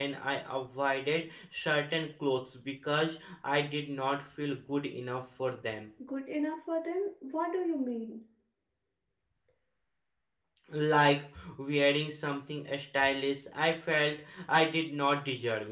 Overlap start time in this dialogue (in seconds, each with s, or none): none